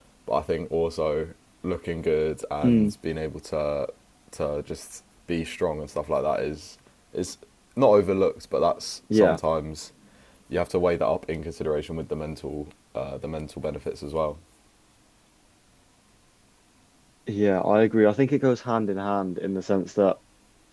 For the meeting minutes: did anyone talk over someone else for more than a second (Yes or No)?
No